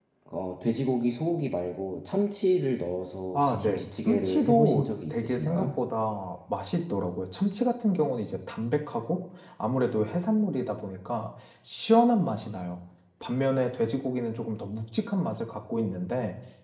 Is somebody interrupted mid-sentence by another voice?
Yes, from 3.3 s

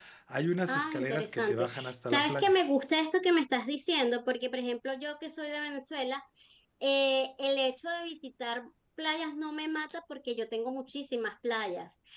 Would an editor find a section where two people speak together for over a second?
Yes, from 0.7 s

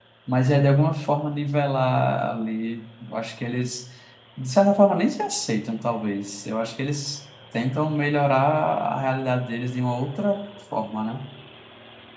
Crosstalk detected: No

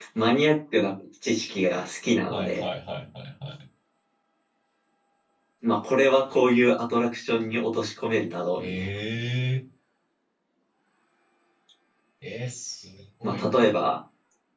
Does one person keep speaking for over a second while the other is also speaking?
No

